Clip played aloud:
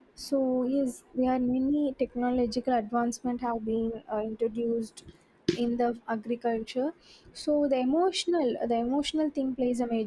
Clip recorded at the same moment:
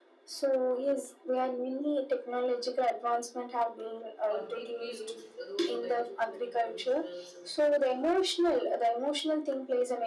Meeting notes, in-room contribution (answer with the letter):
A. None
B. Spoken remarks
B